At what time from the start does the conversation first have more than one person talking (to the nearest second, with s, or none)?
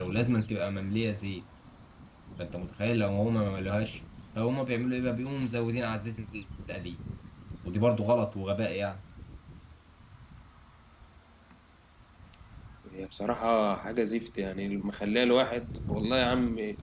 none